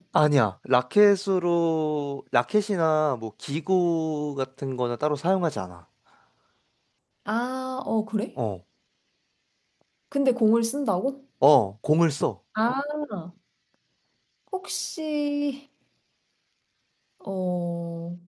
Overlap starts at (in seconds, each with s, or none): none